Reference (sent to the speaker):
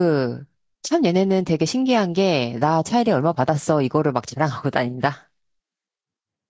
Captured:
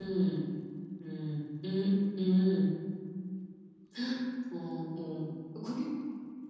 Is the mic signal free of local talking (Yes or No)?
No